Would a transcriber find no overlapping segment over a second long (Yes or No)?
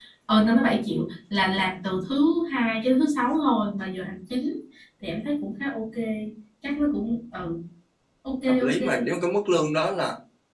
Yes